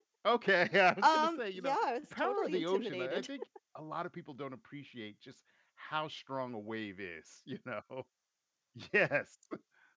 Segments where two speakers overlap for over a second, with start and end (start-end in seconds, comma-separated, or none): 1.0-3.3